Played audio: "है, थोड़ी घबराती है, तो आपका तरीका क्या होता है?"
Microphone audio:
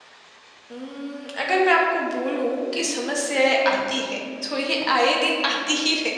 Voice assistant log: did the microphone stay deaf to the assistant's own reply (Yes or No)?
Yes